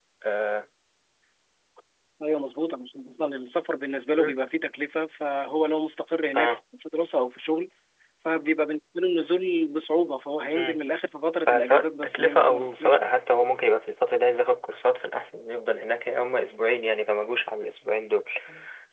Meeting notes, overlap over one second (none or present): present